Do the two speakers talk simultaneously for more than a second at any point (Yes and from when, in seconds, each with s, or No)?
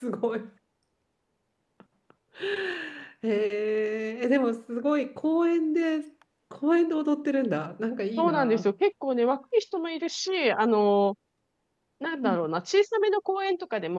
No